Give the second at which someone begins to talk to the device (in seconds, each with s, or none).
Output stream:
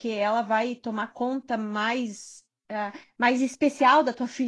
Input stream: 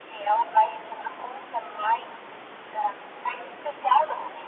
none